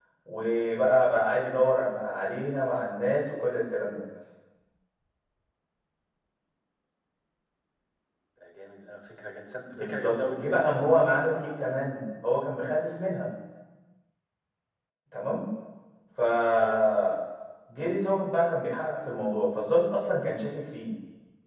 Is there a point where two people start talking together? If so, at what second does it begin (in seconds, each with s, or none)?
9.7 s